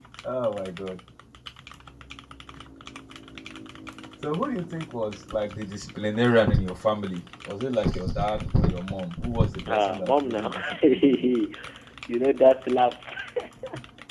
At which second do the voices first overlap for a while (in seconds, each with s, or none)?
9.7 s